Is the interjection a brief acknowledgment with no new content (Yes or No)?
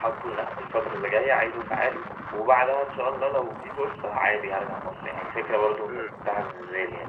Yes